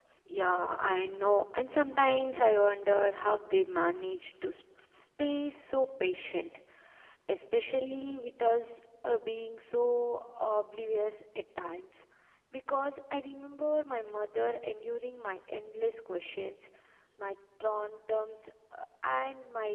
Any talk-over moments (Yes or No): No